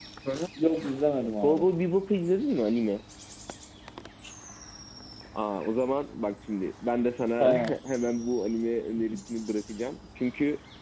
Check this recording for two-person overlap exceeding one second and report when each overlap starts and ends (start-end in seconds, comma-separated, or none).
none